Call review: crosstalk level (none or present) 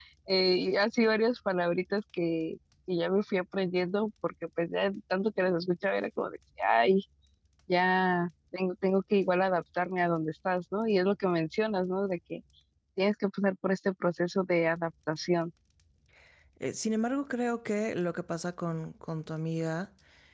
none